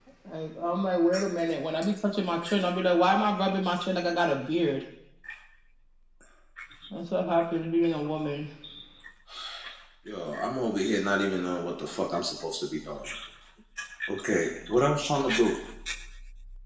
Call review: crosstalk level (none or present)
none